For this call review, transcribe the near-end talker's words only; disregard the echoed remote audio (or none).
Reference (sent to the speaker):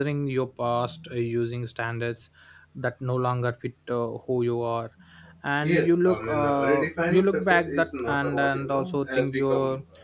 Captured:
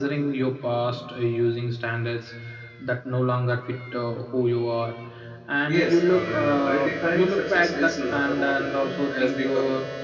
none